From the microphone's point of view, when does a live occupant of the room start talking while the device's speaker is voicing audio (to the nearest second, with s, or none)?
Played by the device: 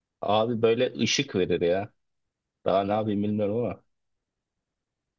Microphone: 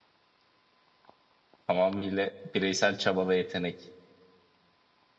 2 s